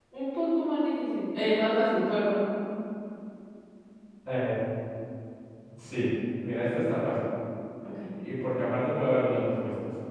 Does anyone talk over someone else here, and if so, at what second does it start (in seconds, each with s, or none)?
none